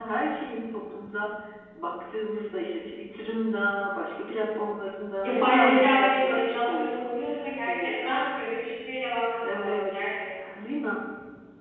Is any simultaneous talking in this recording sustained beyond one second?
Yes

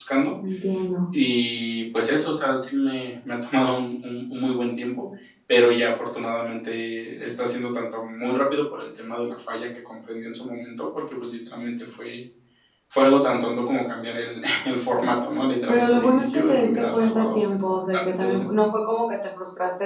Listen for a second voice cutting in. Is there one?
Yes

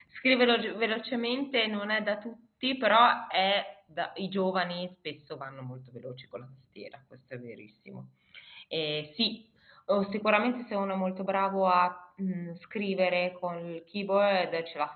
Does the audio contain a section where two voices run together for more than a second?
No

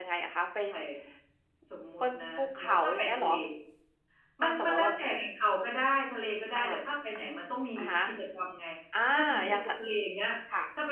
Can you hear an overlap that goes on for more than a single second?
Yes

